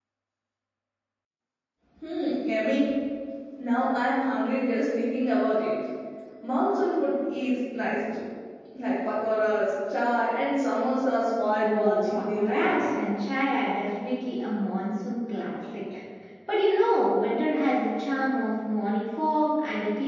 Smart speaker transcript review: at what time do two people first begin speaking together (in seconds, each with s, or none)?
11.6 s